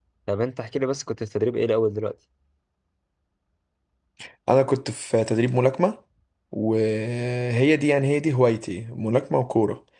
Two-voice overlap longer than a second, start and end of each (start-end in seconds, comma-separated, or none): none